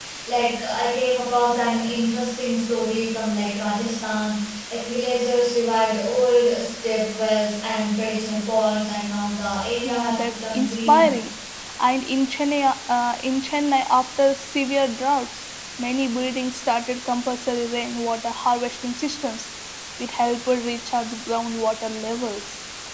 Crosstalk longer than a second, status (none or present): present